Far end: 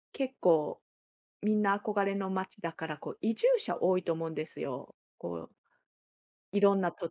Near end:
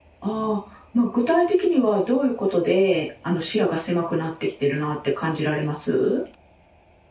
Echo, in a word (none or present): none